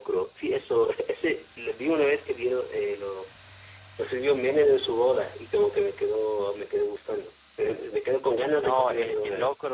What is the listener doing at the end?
taking over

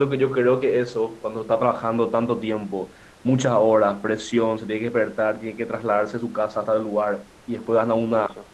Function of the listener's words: listening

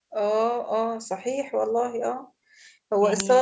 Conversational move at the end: listening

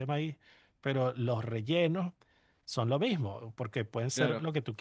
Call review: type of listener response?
listening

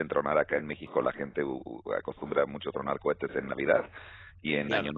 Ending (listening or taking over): listening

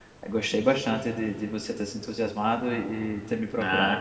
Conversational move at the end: taking over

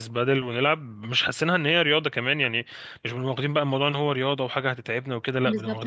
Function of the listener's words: taking over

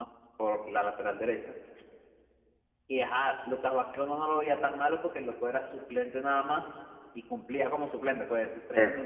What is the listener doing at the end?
listening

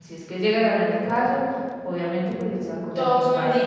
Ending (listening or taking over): taking over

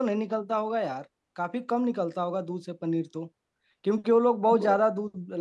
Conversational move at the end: listening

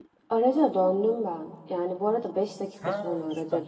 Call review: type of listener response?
listening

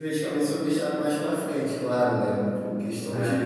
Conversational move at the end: listening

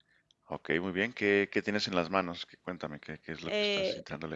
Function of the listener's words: taking over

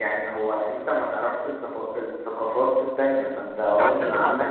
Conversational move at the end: taking over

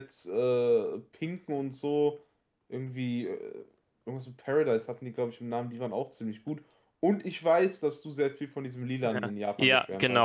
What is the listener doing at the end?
taking over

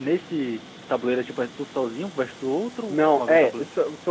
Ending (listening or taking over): taking over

